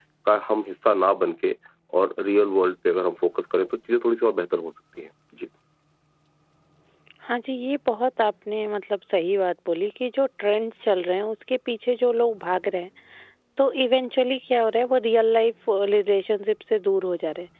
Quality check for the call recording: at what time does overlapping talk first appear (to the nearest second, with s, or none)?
none